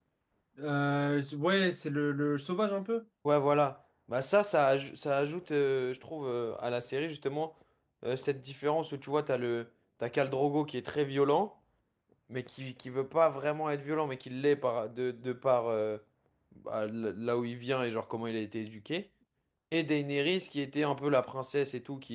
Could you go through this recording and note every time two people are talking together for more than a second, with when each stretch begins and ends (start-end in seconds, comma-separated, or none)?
none